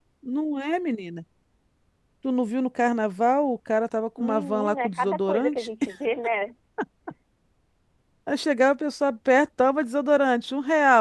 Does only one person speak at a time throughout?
No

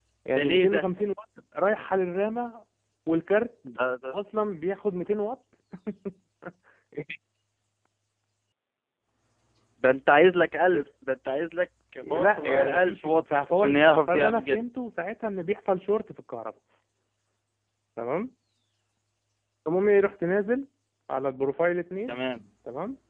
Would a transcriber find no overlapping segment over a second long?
No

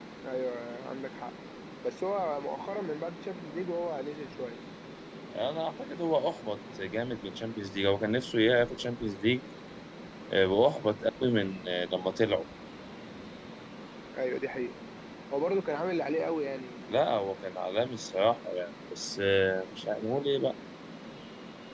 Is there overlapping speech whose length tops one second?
No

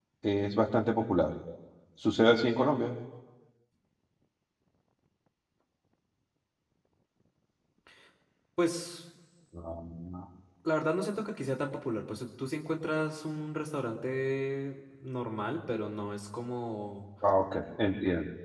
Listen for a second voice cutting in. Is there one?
No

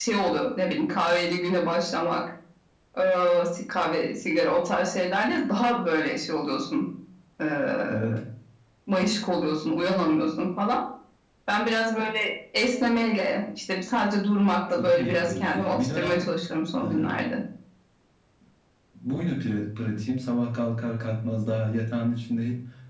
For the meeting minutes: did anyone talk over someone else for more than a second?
Yes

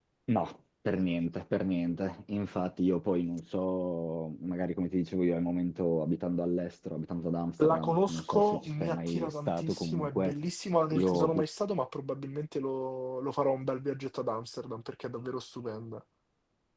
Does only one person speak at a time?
No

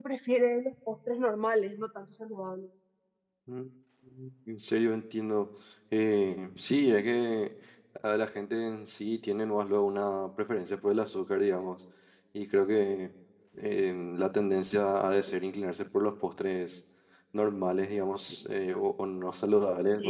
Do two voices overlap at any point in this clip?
No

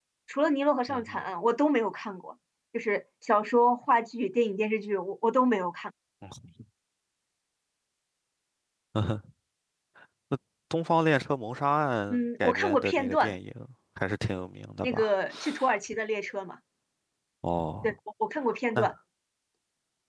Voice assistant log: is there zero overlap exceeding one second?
No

